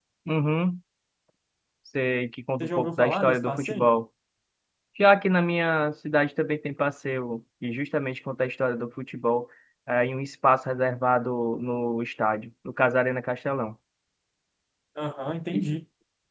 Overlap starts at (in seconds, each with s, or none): 2.6 s